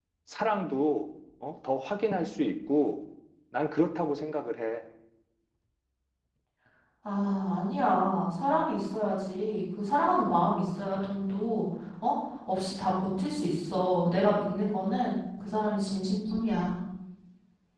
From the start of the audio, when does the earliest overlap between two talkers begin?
none

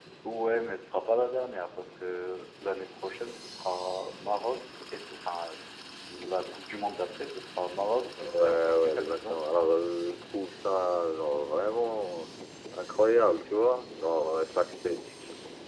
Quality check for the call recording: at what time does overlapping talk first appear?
8.2 s

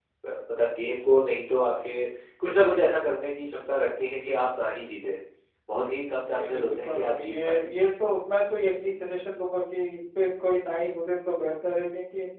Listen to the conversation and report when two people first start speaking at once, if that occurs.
6.2 s

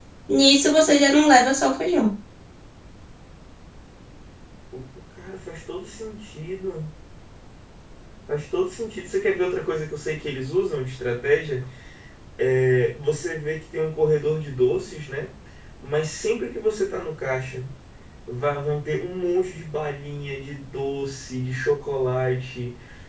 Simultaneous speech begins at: none

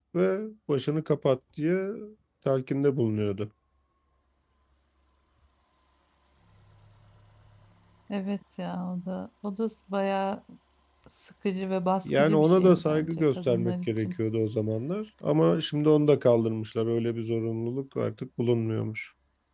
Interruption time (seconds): 12.0 s

